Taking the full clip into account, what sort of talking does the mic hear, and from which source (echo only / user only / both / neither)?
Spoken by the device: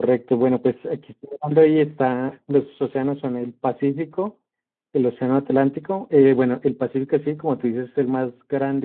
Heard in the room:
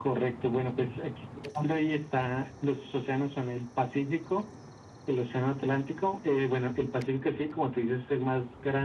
echo only